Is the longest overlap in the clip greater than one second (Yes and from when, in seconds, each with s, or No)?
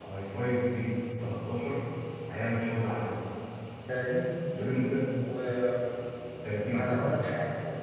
No